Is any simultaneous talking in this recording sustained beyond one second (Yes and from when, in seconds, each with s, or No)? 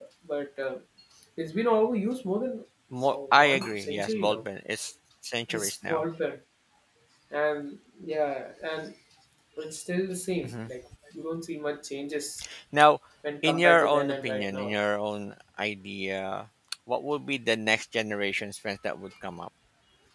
Yes, from 3.1 s